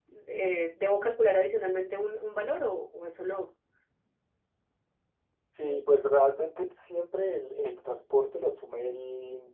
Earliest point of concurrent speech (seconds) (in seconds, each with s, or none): none